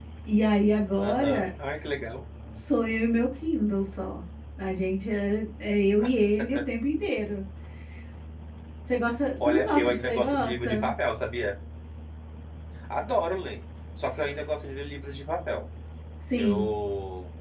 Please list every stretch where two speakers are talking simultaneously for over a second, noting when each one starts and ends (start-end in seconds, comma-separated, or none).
9.4-10.9